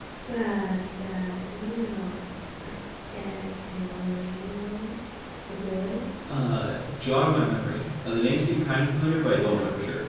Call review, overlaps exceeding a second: none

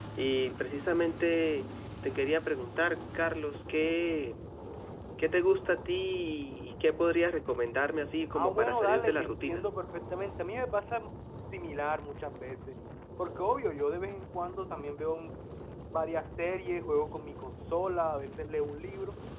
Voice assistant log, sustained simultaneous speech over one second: present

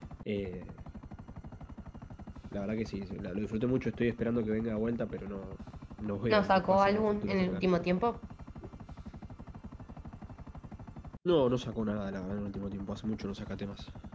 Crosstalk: present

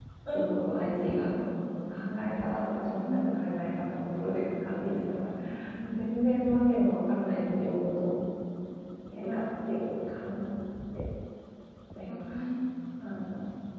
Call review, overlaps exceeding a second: none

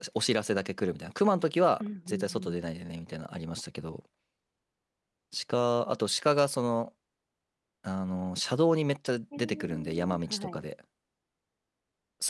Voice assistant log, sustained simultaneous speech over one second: present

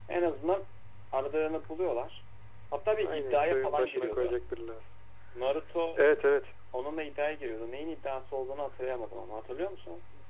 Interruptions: present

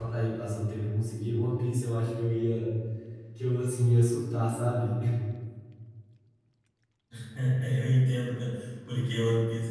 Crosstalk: none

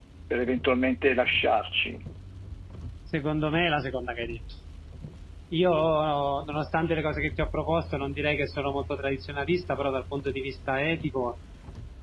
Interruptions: none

